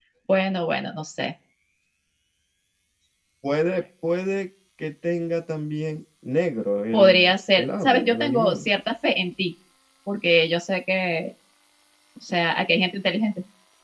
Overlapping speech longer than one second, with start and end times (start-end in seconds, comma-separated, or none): 6.9-8.7